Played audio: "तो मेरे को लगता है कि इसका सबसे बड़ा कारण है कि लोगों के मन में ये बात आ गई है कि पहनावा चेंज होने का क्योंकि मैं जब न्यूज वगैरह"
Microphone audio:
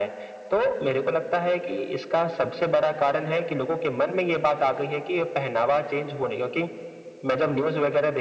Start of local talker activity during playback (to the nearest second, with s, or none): none